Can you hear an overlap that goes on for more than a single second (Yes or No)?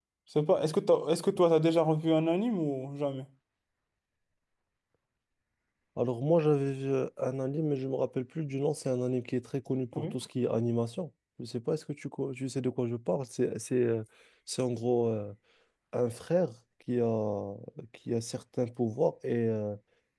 No